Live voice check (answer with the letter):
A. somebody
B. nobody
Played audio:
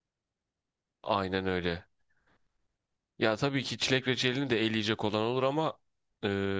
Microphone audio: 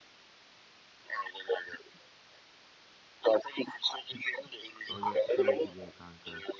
A